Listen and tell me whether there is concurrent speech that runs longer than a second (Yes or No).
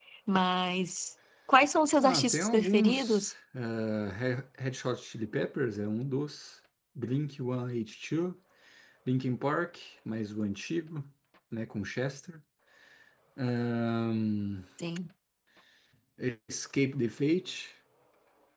Yes